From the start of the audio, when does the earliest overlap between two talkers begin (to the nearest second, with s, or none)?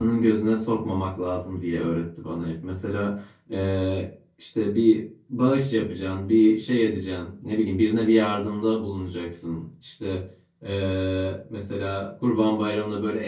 none